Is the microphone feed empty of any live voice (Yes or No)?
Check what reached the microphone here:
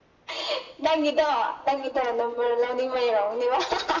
Yes